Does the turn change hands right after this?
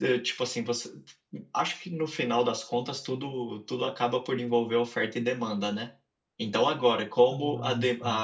No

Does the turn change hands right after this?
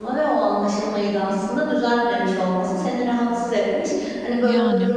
No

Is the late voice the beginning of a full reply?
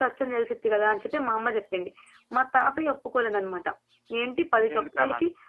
No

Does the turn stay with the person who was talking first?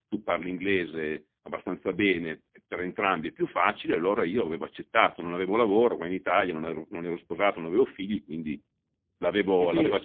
Yes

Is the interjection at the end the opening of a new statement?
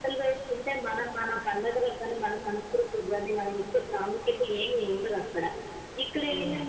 No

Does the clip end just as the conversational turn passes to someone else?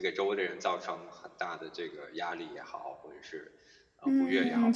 Yes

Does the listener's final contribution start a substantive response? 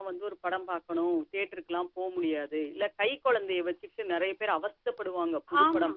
No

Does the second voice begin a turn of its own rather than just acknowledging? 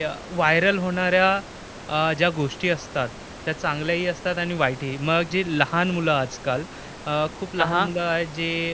No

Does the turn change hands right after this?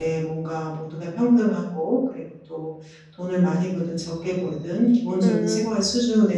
No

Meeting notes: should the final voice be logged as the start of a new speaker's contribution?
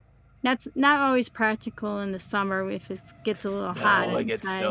Yes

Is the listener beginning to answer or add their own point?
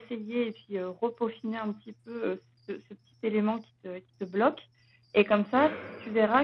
No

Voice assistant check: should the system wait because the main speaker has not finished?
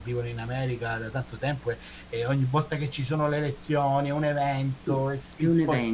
No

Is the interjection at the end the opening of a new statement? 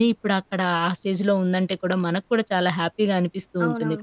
Yes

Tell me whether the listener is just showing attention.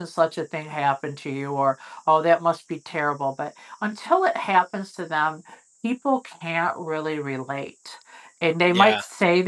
Yes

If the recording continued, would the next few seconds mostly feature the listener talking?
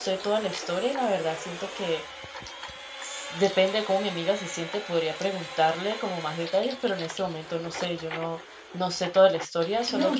No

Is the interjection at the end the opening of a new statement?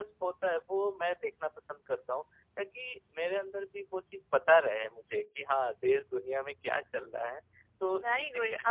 Yes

